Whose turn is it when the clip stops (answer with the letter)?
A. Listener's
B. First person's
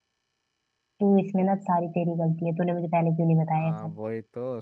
A